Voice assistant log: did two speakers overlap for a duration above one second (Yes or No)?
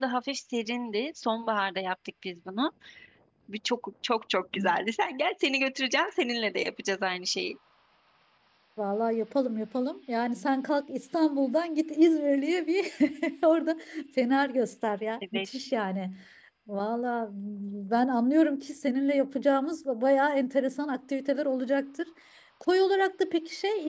No